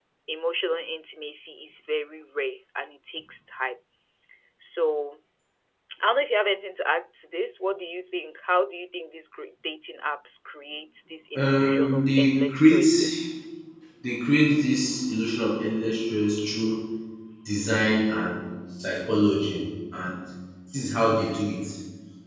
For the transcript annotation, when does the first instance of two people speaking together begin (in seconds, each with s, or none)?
11.3 s